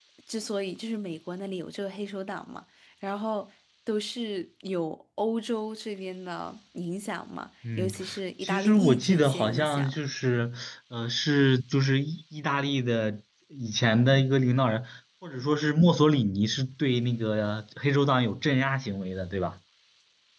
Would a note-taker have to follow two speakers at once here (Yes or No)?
Yes